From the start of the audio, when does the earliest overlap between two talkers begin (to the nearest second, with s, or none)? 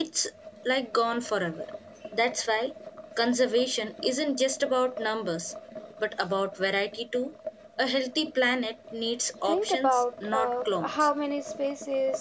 9 s